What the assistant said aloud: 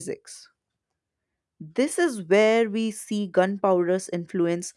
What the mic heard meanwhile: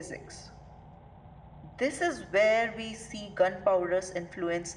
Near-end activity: none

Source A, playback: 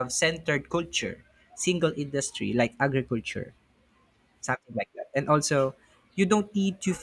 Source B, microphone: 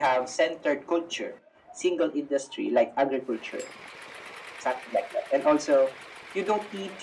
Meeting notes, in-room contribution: none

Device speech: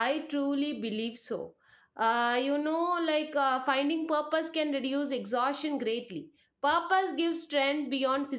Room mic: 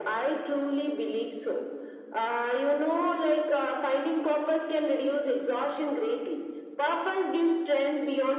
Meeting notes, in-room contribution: none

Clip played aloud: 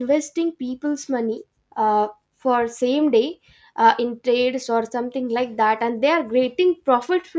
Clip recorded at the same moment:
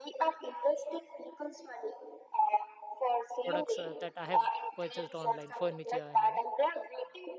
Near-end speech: present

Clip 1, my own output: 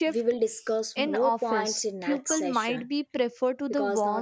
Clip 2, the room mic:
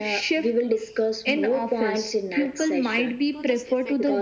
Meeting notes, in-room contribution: present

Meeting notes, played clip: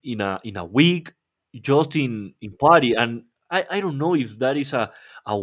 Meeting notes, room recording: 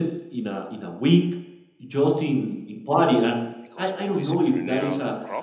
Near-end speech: present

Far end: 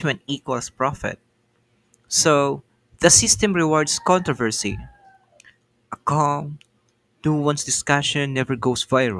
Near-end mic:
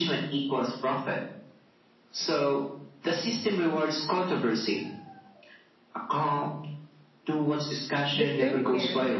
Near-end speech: present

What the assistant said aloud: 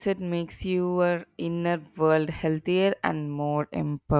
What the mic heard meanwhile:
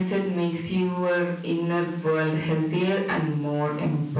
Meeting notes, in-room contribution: none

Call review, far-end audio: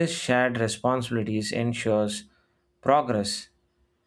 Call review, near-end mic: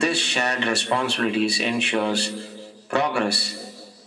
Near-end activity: none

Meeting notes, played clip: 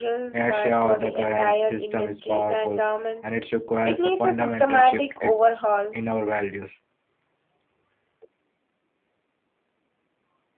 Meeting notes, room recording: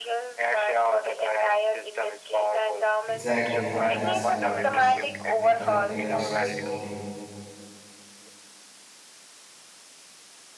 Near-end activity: present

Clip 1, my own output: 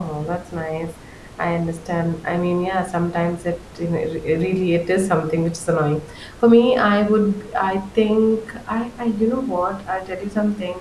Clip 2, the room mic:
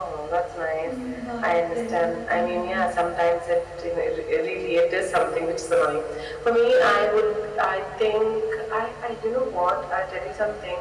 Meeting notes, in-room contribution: present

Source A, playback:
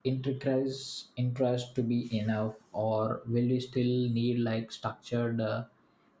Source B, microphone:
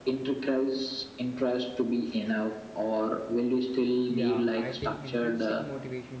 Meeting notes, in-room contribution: present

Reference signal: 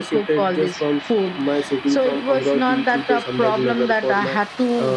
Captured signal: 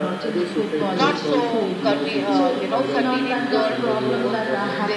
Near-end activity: present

